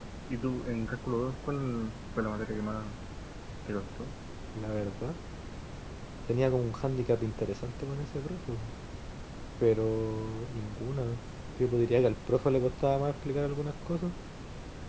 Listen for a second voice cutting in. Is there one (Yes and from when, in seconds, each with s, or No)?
No